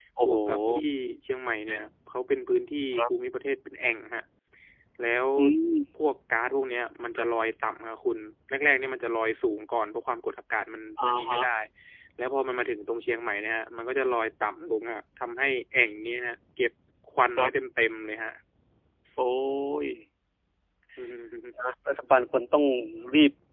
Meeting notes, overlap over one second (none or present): none